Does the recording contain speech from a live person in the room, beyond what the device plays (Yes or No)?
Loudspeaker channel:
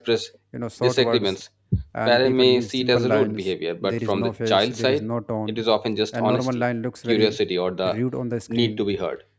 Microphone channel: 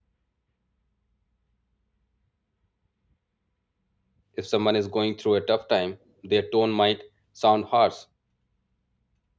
Yes